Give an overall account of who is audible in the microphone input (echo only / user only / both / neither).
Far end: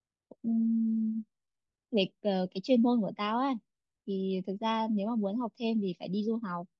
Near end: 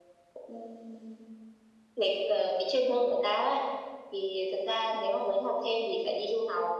echo only